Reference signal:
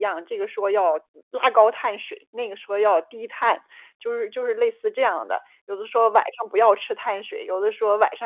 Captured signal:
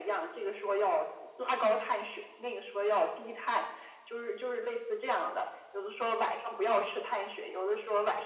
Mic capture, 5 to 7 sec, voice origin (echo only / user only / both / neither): echo only